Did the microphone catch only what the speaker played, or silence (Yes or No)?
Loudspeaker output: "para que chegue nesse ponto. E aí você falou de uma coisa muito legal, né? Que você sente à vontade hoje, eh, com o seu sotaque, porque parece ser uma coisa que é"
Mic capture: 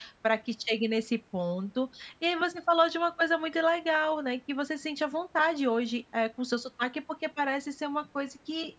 Yes